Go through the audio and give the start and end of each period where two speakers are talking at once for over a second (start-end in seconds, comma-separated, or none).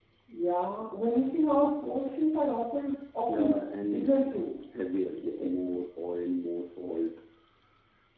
3.3-4.5